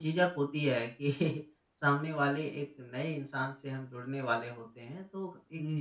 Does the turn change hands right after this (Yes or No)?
No